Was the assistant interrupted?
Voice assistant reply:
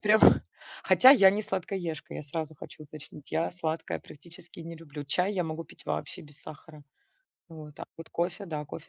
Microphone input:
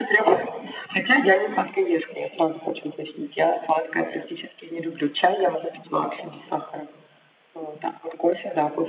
No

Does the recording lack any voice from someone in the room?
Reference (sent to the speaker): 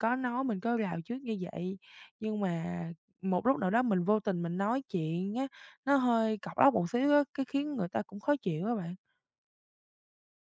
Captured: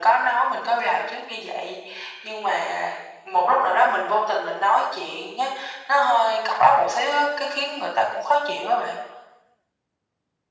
Yes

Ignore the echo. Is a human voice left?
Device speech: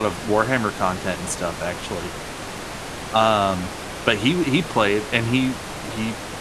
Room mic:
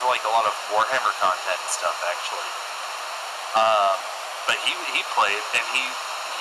No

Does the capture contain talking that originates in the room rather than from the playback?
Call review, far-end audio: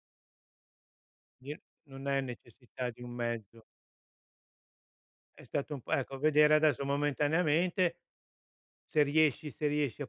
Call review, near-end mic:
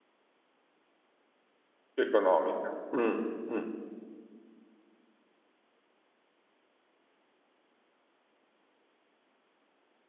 Yes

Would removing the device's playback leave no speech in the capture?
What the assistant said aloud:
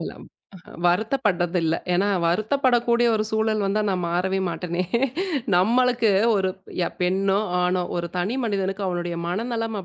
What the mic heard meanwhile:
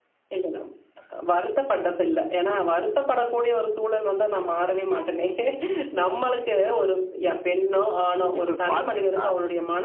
No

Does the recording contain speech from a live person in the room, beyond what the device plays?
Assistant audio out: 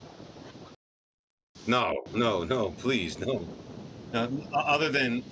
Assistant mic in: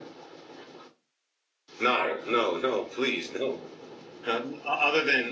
Yes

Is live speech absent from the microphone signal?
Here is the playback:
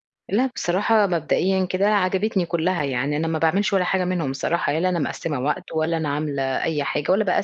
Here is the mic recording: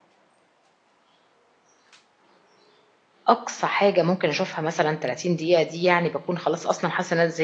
No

